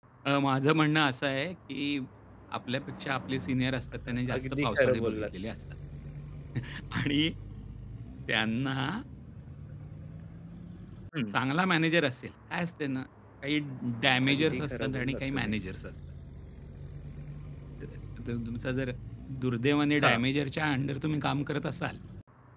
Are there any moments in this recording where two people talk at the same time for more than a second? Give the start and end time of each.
4.1-5.3, 14.3-15.5

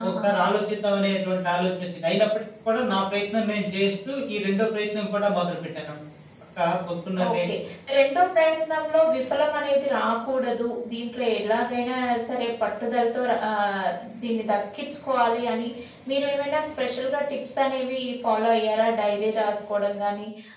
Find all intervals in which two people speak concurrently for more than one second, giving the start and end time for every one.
none

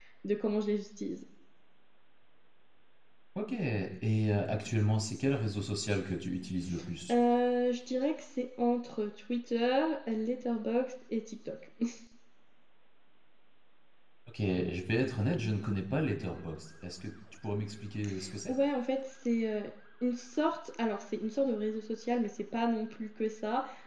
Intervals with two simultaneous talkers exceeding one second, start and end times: none

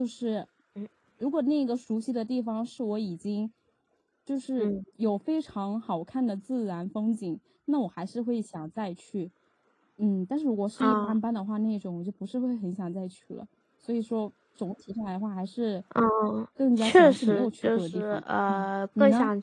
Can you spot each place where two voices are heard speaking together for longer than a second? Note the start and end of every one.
16.8-18.2

